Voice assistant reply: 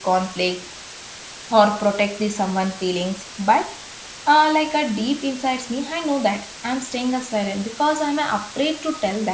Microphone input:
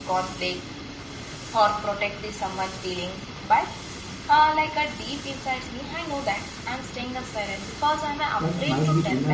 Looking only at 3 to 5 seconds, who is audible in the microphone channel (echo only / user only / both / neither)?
echo only